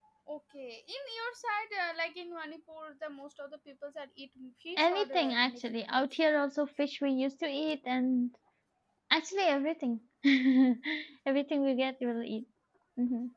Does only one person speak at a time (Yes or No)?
No